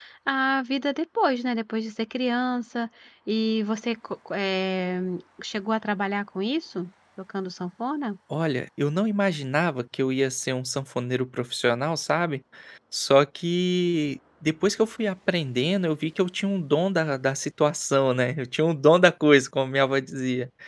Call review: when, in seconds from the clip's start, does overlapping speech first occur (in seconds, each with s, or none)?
none